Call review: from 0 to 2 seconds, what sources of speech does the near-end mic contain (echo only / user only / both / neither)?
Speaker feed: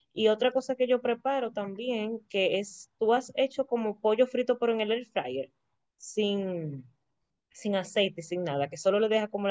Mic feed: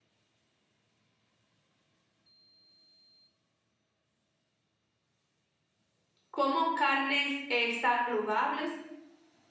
neither